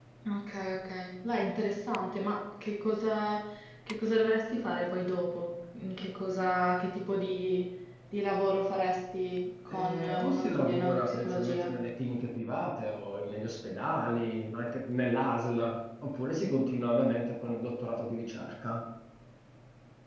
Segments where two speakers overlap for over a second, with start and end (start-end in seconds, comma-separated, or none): 9.7-11.7